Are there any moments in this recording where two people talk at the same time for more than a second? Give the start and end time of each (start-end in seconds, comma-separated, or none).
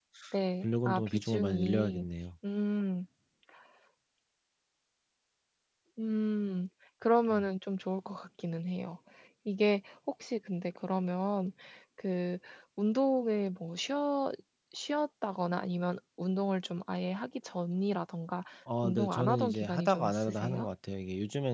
0.6-2.0, 18.8-20.7